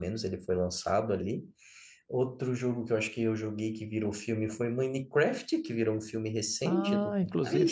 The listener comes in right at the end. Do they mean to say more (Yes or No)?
Yes